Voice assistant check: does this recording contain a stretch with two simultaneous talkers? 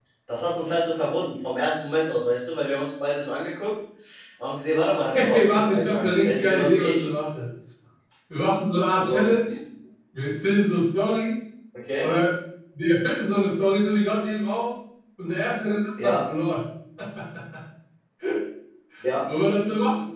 Yes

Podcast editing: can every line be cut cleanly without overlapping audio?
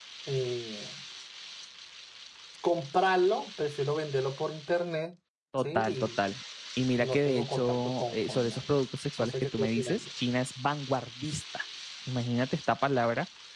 No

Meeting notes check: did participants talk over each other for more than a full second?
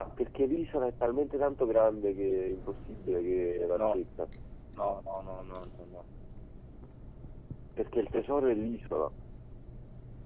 No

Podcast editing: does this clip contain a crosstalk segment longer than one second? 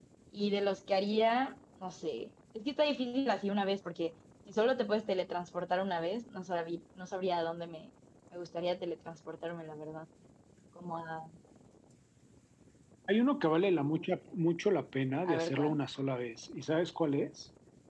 No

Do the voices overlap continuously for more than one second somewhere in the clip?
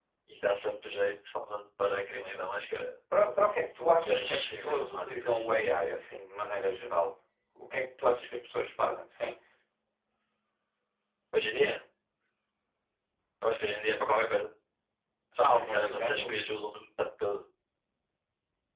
Yes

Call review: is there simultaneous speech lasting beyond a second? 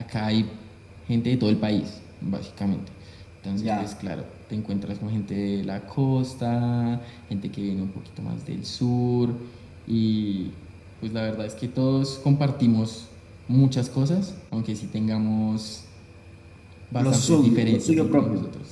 Yes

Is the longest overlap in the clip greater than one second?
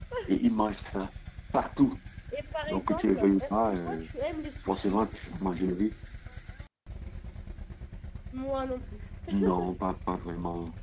Yes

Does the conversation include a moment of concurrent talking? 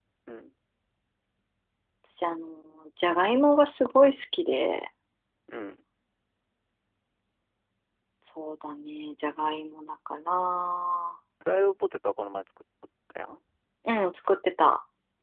No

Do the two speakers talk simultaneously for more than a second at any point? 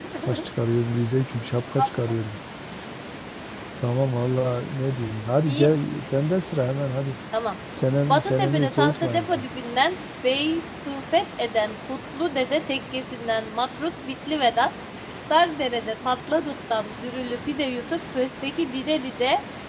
Yes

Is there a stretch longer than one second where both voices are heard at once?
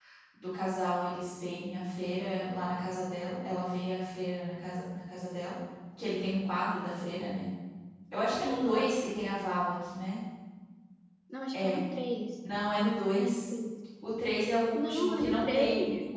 Yes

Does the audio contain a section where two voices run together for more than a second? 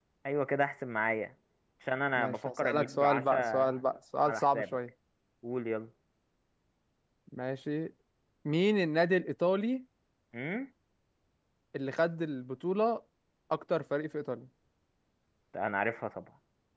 Yes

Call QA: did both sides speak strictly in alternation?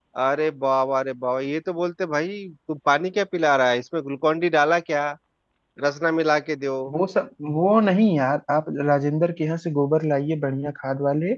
Yes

